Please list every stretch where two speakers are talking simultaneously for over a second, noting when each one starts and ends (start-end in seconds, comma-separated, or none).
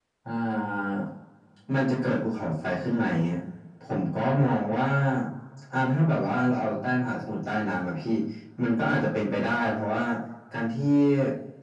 none